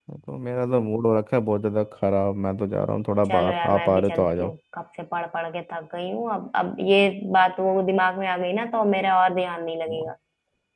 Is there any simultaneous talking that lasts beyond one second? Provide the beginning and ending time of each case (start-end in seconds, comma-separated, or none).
3.3-4.5